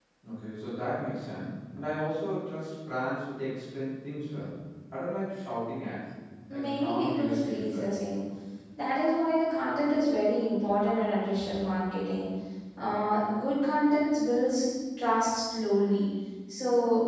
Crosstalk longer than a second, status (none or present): present